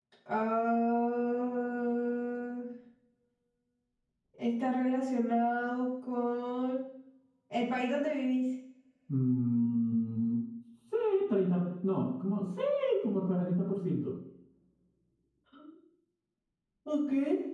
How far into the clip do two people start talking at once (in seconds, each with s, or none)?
none